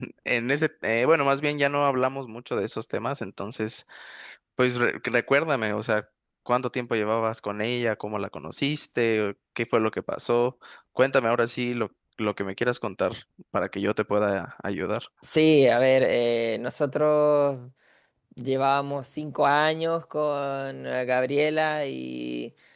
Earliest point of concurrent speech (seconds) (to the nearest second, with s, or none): none